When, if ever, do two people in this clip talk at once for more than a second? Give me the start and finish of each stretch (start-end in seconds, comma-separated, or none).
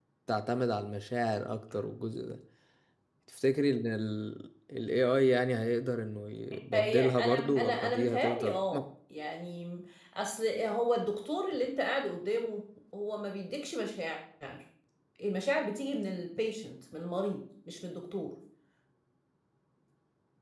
6.7-8.8